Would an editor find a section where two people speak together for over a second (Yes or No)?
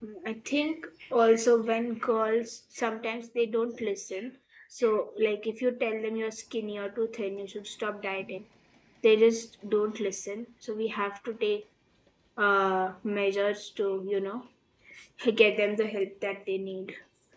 No